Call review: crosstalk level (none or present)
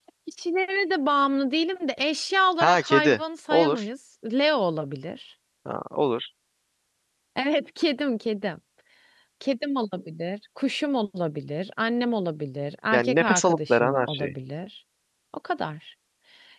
present